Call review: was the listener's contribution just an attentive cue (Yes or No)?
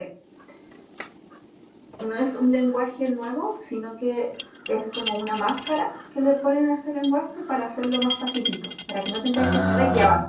No